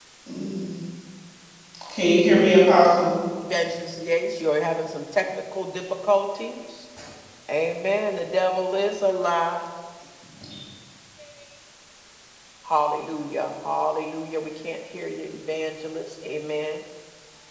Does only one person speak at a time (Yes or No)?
Yes